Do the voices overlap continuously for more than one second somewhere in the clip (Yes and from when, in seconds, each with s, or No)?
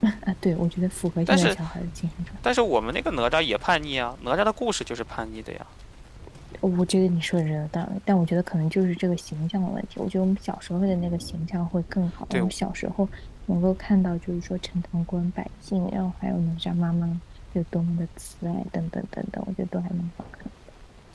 No